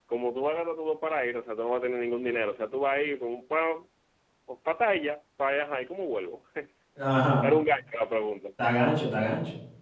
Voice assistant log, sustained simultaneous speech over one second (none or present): none